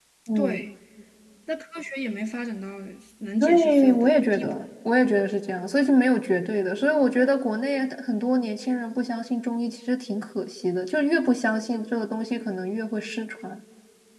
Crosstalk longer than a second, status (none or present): present